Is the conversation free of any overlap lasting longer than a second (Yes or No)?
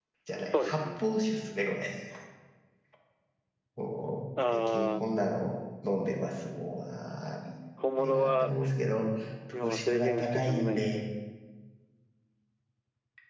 No